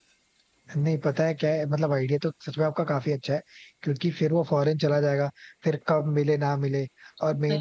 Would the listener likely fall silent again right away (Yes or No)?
Yes